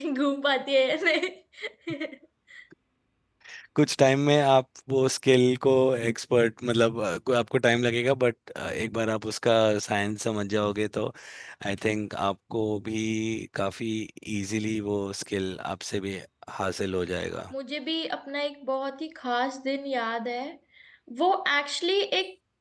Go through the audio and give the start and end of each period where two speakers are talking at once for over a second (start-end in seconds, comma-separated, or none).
none